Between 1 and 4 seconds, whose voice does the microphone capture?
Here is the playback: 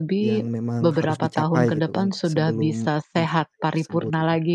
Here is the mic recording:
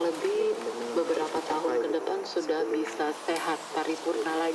echo only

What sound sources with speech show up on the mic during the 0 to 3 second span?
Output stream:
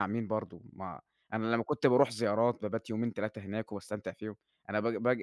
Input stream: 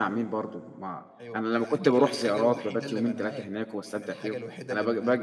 both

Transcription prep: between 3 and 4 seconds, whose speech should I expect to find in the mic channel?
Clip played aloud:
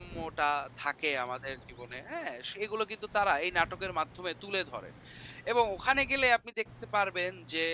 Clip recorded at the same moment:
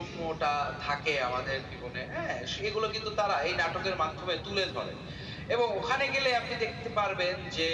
echo only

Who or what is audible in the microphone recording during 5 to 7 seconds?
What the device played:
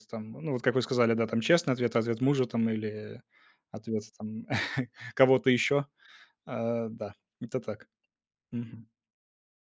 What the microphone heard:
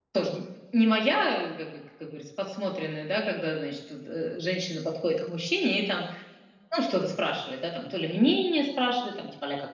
user only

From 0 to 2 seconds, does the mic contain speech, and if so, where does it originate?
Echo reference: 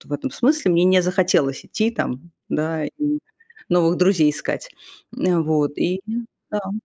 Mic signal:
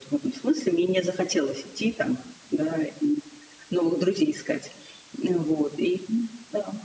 echo only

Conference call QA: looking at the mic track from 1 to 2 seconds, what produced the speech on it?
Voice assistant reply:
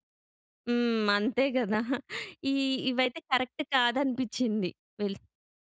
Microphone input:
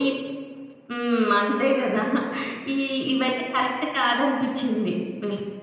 echo only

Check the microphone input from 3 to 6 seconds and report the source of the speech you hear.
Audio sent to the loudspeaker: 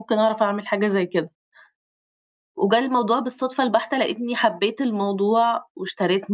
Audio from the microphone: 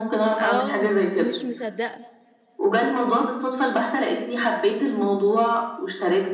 echo only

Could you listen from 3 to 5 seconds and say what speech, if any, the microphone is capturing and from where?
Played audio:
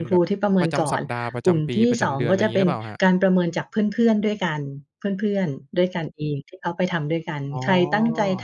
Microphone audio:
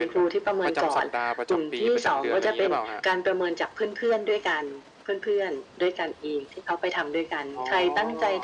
echo only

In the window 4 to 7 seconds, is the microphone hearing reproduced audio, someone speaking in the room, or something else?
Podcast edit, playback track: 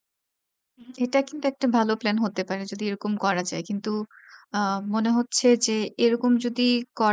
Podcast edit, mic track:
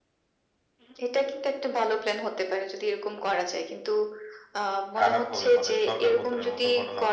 both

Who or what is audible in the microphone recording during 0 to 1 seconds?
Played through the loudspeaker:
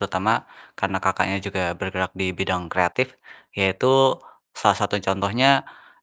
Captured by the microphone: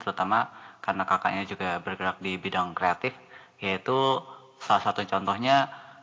echo only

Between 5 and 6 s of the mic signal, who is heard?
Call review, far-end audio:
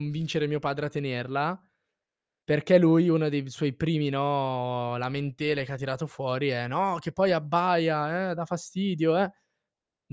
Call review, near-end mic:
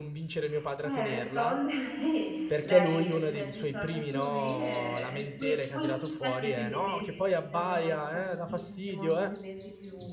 both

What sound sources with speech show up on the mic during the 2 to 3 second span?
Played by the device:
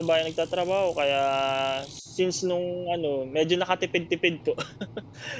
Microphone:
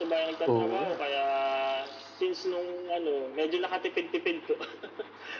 echo only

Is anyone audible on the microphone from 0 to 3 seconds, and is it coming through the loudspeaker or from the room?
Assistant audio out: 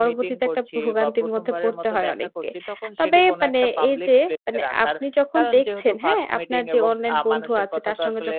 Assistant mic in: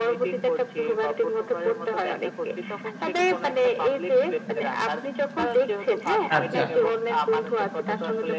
echo only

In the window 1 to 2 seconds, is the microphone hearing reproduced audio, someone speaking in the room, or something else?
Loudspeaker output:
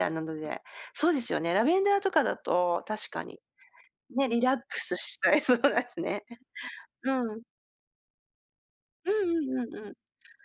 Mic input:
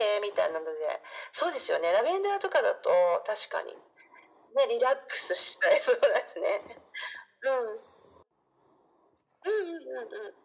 echo only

